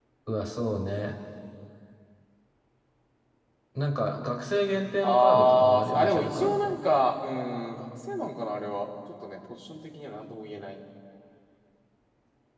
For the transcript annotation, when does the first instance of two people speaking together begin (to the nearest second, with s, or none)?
5 s